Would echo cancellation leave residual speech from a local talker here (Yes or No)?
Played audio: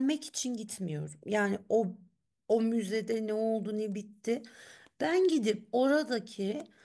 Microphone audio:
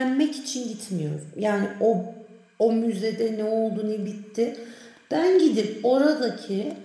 No